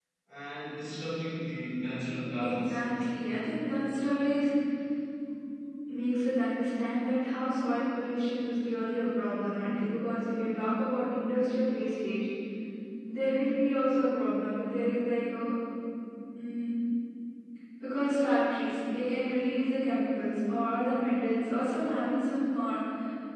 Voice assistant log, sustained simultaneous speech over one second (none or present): none